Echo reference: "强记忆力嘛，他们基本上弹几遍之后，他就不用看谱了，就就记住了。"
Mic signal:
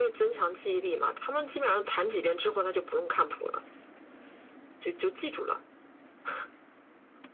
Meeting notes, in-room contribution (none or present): none